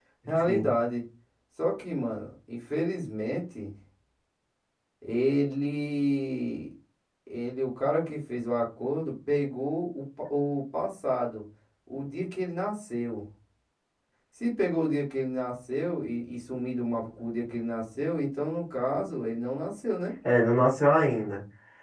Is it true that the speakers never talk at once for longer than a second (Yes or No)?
Yes